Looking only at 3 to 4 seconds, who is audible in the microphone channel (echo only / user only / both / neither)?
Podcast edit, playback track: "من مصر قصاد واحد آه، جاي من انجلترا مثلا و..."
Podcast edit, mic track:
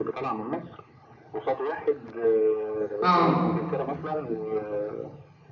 both